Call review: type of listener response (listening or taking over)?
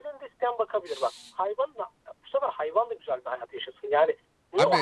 taking over